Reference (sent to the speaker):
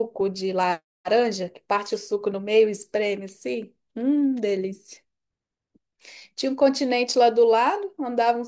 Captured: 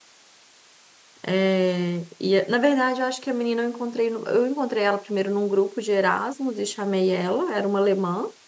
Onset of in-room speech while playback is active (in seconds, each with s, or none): 1.2 s